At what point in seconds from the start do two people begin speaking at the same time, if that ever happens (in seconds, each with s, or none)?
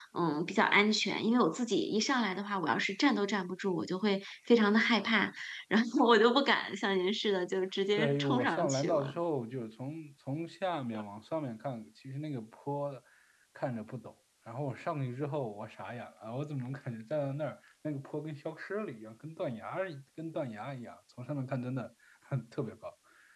7.9 s